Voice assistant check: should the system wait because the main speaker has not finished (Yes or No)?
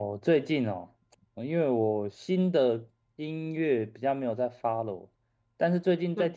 Yes